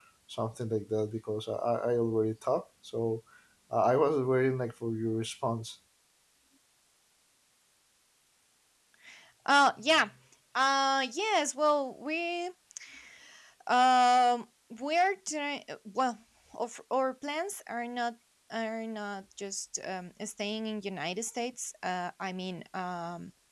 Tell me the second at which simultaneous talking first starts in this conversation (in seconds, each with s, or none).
none